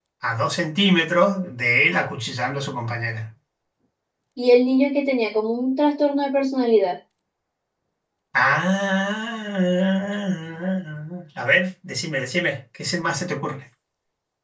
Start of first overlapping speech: none

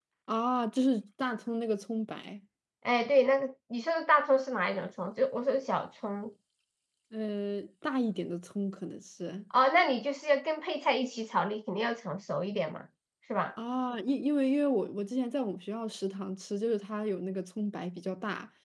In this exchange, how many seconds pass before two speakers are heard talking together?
none

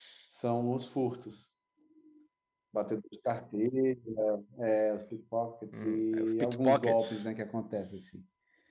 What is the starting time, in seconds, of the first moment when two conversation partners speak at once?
5.7 s

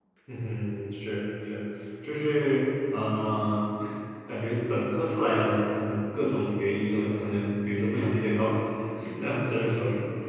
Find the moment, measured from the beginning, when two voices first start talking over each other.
none

